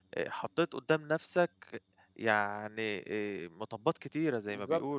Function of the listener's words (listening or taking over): taking over